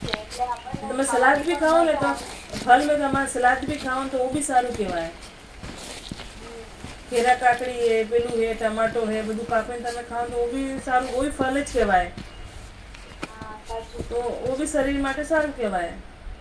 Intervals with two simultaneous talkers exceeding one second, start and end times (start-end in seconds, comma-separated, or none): 0.9-2.1